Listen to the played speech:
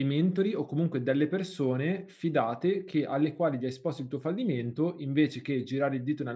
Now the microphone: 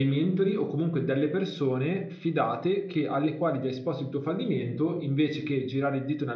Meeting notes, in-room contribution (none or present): none